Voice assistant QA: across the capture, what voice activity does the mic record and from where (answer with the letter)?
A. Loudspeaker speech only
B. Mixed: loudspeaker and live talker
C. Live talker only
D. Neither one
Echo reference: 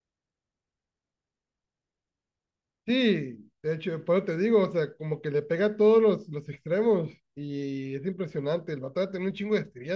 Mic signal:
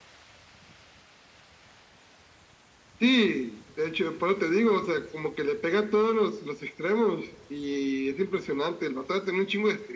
A